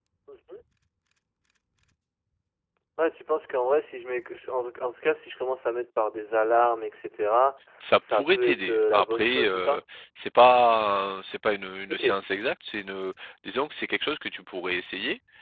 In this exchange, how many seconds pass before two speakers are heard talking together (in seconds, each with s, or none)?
8.1 s